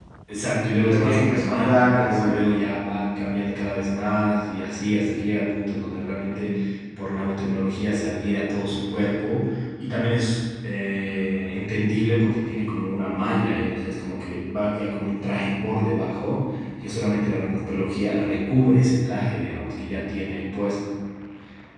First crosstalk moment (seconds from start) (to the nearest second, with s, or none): 1 s